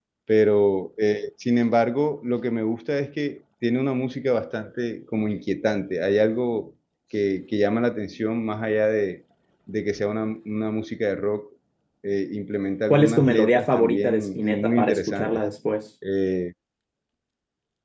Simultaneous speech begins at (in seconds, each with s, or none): 12.9 s